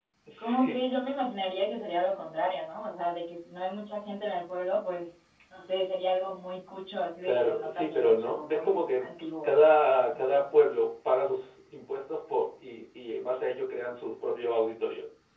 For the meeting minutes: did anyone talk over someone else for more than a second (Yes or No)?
Yes